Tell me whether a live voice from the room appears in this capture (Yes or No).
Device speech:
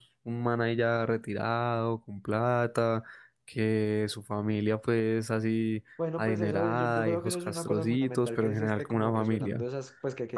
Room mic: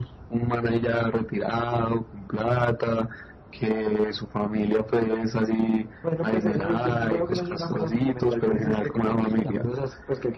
No